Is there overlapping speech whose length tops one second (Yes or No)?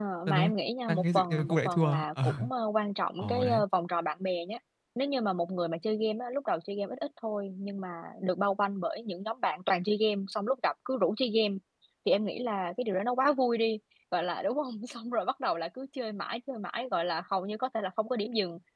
Yes